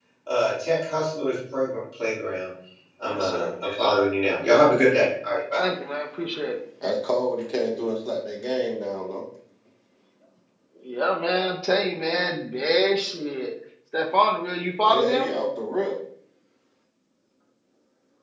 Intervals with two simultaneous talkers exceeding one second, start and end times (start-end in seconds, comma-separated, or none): none